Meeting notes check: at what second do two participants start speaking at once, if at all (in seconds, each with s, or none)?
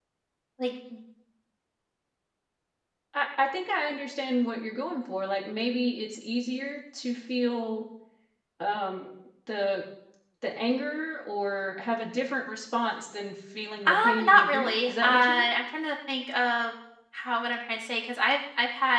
13.8 s